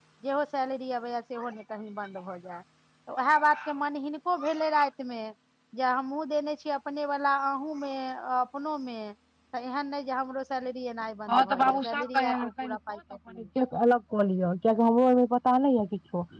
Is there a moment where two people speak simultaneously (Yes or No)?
Yes